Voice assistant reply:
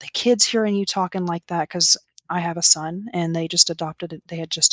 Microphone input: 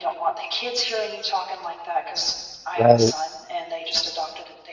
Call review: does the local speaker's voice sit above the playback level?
Yes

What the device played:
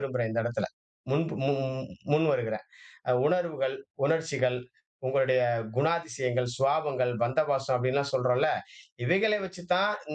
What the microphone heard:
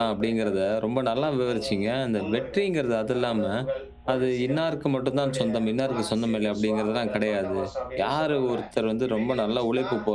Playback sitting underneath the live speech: Yes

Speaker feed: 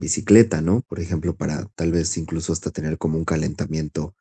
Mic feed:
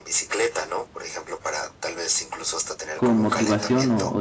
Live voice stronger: Yes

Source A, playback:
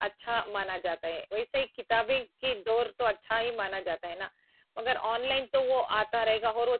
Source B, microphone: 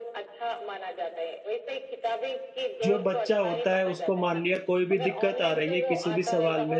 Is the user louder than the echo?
Yes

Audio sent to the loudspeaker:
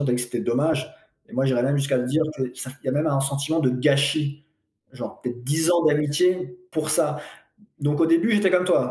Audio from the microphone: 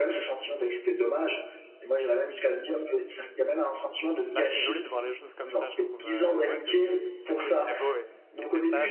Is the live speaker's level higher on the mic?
No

